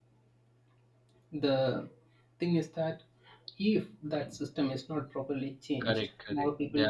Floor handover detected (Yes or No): Yes